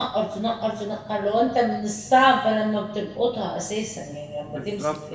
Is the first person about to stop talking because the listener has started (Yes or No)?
Yes